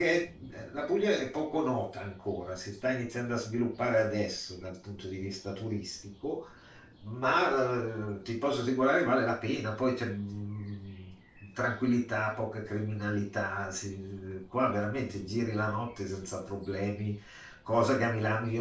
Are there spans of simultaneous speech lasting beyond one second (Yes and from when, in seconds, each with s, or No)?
No